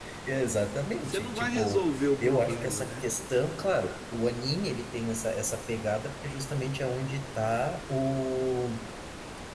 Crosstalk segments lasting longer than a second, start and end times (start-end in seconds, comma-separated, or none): 1.0-3.1